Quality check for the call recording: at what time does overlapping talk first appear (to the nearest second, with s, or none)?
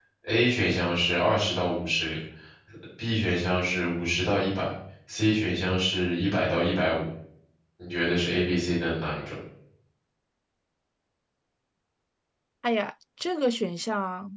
none